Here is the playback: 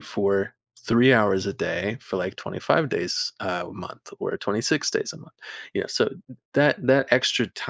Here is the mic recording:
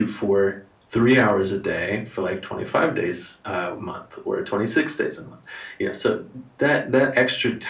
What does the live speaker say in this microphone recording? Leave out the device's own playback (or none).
none